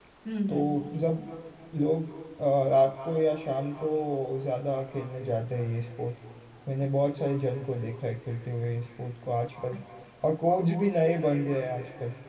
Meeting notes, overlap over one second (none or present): none